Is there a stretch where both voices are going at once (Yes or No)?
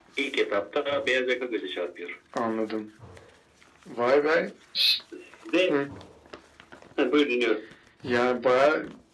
No